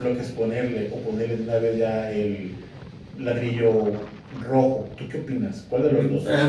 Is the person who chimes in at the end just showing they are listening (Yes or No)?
No